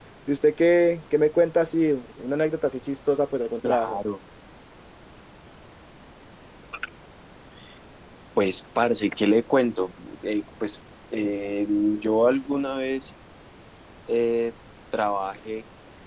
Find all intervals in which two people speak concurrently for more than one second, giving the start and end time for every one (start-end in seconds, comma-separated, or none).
none